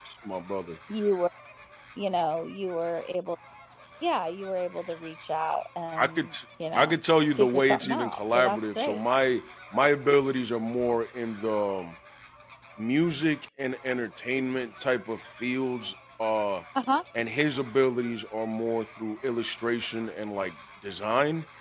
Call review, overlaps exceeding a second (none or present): present